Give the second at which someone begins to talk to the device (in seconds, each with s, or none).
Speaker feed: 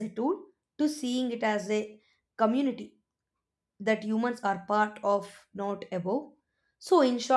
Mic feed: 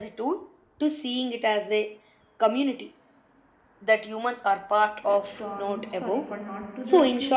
5.0 s